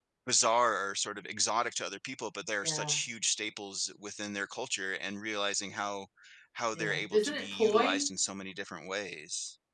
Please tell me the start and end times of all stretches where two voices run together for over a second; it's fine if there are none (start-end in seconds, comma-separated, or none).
6.7-8.0